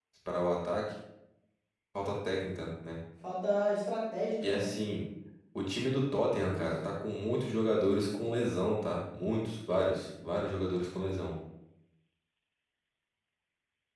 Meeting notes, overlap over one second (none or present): none